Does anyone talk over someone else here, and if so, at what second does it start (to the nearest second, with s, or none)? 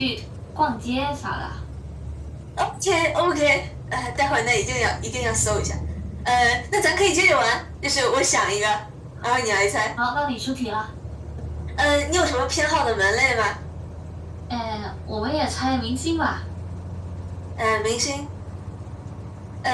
none